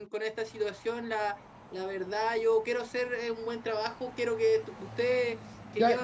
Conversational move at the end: taking over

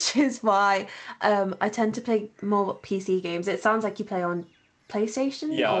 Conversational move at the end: taking over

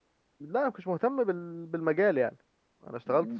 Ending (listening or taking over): taking over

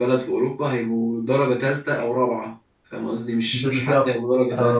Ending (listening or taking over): taking over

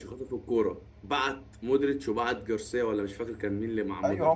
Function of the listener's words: taking over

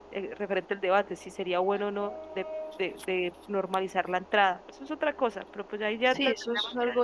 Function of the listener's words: taking over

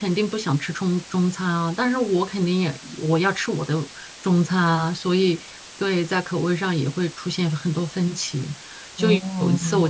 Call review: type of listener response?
listening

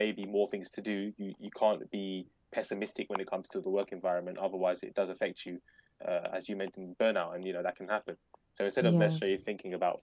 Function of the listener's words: listening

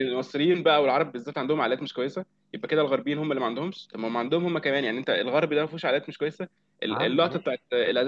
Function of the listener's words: listening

